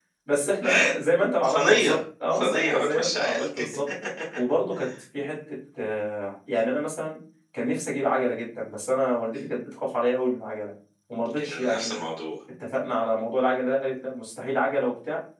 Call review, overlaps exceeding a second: present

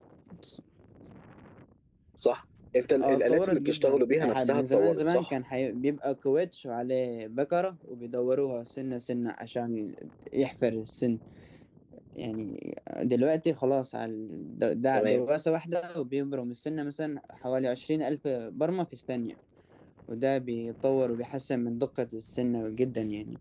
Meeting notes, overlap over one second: present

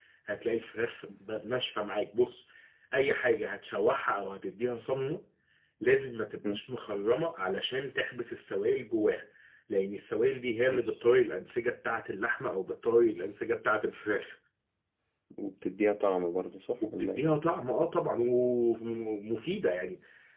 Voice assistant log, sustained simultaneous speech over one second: none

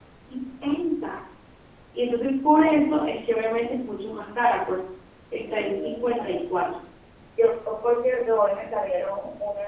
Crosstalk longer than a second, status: present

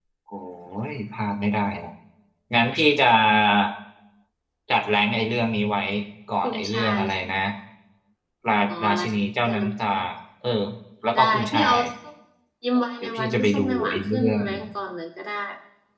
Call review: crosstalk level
present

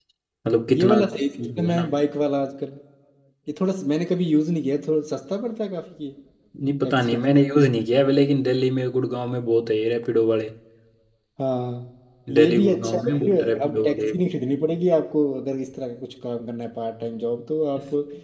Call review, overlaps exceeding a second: present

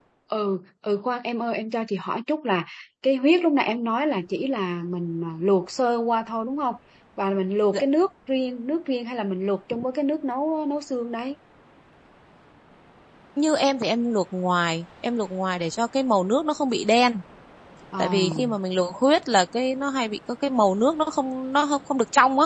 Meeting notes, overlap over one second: none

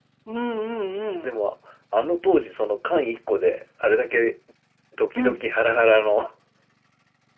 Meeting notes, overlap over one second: none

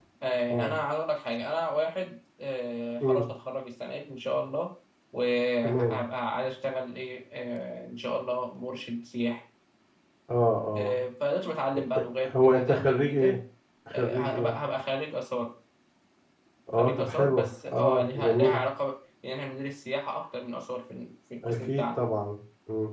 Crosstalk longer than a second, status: present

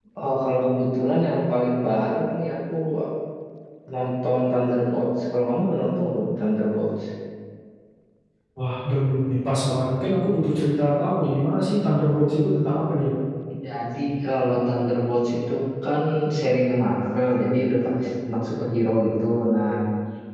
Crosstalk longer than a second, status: none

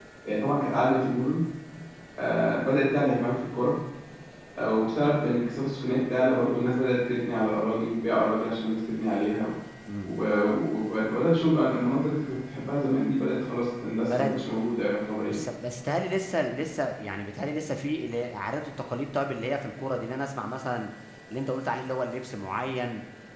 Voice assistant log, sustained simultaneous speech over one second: none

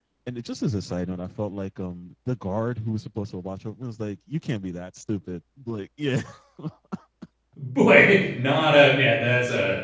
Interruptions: none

